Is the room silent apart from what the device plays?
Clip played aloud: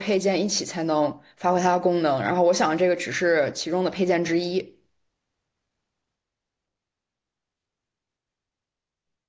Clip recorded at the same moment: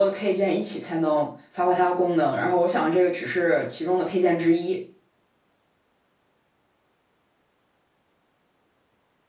Yes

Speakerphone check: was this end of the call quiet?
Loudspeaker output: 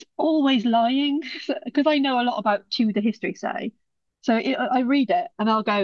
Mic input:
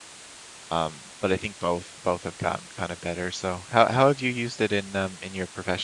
No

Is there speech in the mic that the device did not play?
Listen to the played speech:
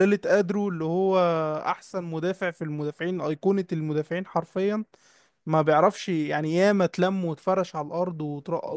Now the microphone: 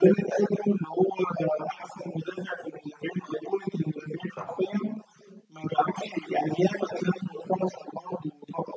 Yes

